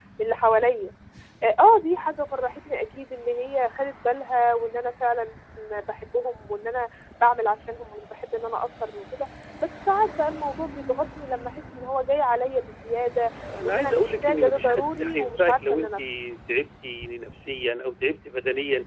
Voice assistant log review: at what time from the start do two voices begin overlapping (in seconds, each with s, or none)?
13.4 s